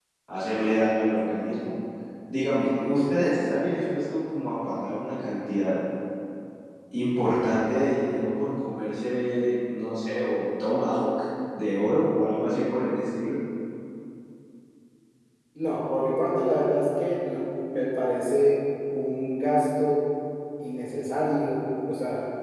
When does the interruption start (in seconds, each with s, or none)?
none